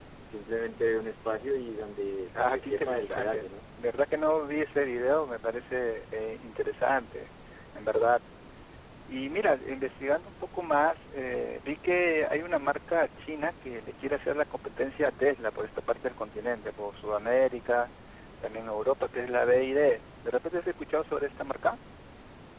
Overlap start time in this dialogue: 2.3 s

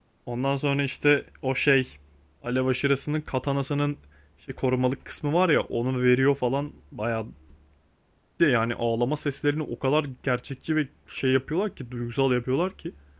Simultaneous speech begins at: none

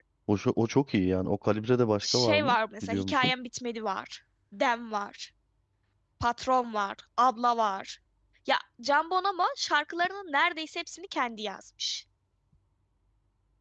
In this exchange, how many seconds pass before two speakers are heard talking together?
2.0 s

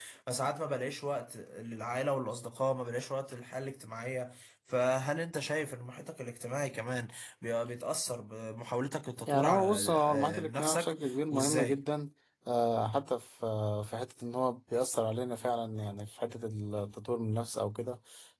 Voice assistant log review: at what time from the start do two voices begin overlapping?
9.3 s

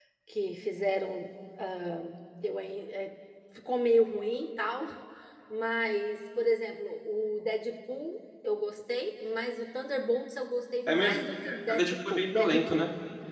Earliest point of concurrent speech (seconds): 10.9 s

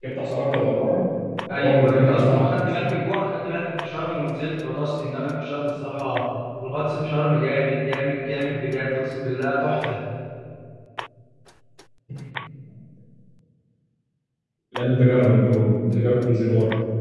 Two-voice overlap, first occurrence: 1.5 s

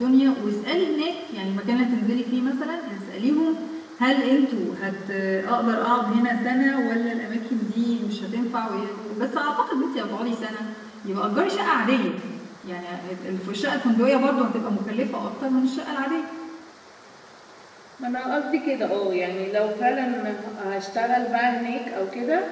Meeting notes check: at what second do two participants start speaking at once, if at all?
none

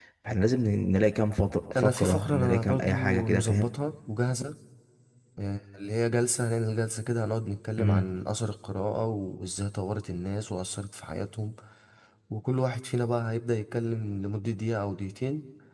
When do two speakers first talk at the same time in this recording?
1.8 s

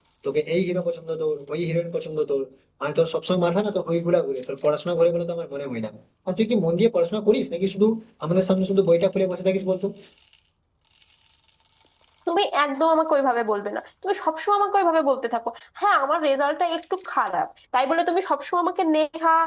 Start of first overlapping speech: none

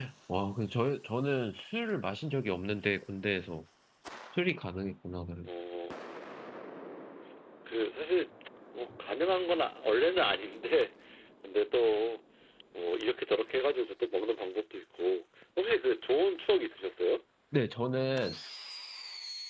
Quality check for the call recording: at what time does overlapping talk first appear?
none

